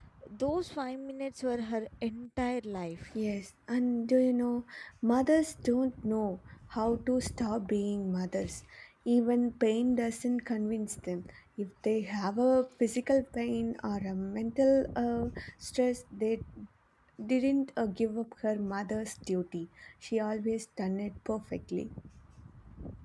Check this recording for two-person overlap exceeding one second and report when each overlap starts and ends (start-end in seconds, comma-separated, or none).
none